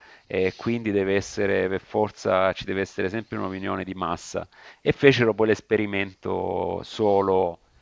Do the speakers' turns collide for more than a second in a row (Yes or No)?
No